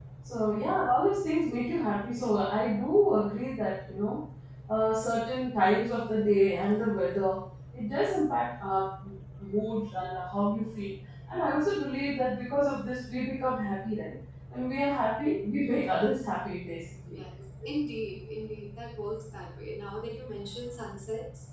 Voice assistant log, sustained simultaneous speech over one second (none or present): none